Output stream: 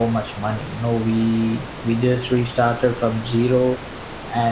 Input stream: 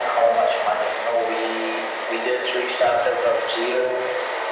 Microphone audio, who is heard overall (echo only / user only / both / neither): echo only